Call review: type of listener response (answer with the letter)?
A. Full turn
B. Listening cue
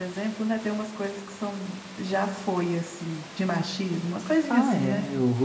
A